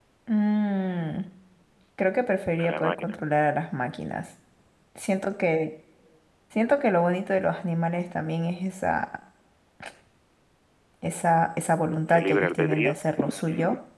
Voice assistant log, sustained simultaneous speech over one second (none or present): present